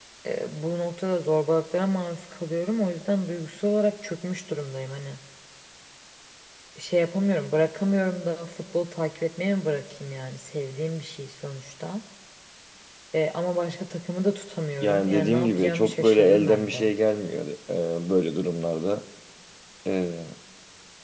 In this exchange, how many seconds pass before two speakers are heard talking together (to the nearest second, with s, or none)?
15 s